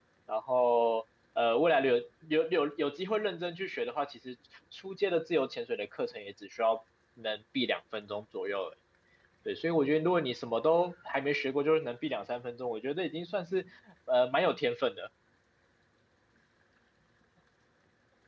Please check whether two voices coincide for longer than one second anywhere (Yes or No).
No